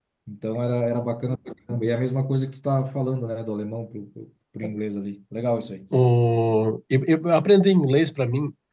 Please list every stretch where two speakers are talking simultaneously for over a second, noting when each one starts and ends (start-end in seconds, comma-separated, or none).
none